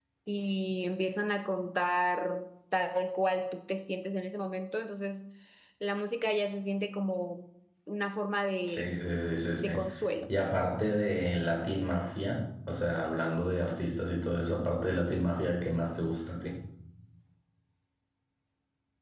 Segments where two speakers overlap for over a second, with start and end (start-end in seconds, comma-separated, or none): none